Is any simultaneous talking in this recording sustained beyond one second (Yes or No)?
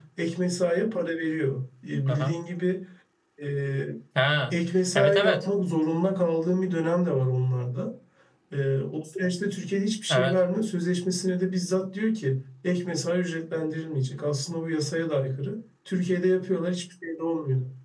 No